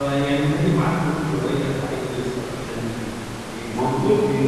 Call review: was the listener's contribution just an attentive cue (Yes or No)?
No